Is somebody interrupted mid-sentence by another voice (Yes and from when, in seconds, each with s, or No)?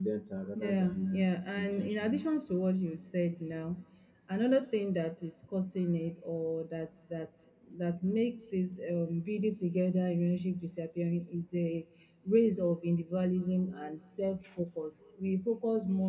Yes, from 0.6 s